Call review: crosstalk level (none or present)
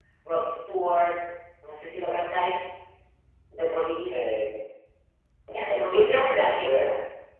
present